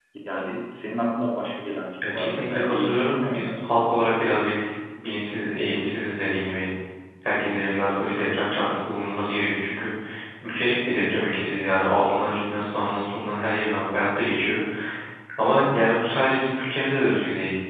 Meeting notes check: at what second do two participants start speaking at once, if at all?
2.0 s

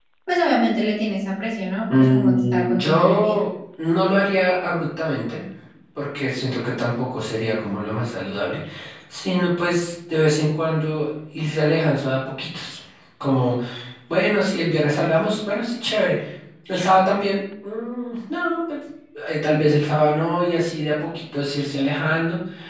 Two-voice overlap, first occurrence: 2.1 s

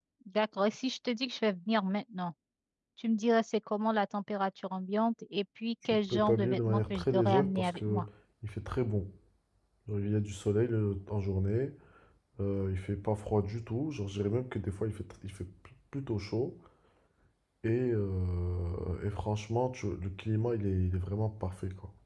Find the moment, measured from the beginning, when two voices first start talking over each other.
5.8 s

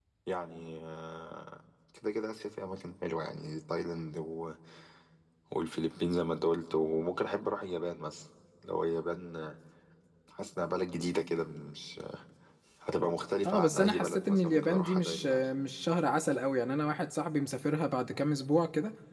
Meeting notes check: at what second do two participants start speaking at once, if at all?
13.4 s

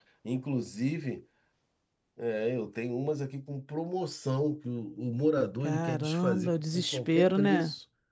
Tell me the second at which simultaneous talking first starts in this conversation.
5.6 s

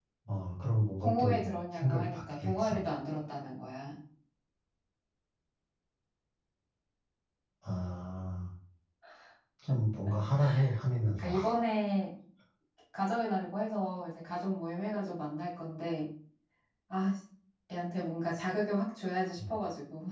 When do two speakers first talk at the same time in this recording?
1.0 s

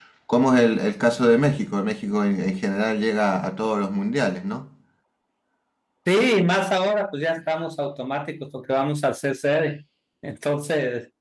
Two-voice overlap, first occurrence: none

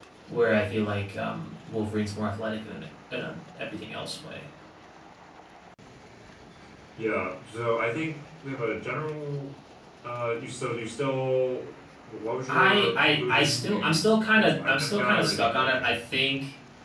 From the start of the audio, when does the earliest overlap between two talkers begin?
12.5 s

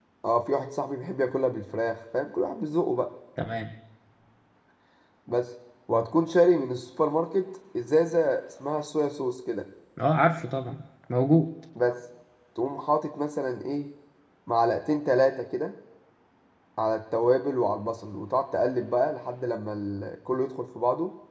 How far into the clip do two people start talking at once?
none

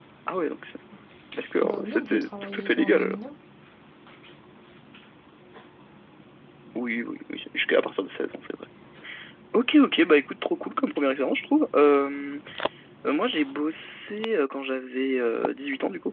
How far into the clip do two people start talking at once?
1.6 s

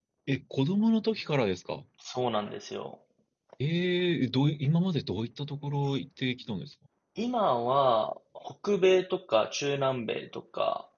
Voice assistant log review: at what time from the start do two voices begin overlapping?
none

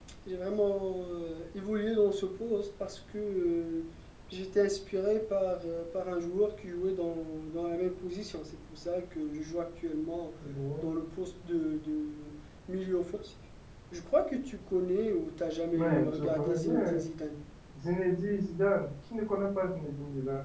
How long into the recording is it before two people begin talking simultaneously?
15.7 s

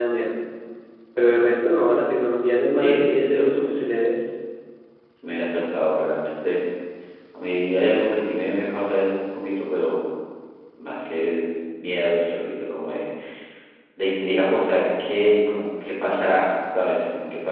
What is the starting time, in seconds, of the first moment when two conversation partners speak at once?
2.8 s

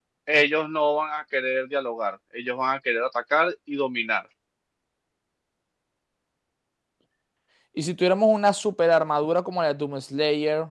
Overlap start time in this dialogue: none

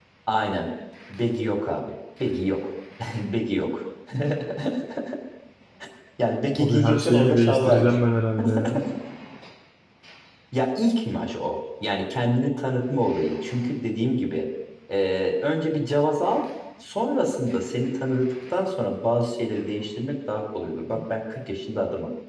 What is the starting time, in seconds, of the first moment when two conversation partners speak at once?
6.6 s

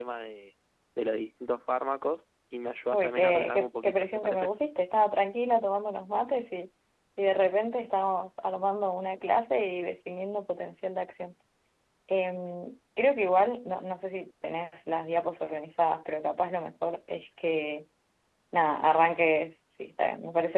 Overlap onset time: 2.9 s

